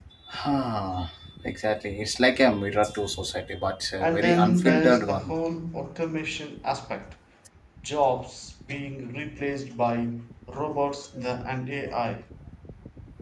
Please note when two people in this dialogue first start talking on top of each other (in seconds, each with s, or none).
4.0 s